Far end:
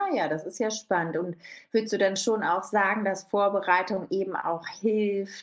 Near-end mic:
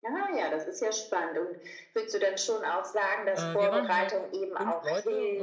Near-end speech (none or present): present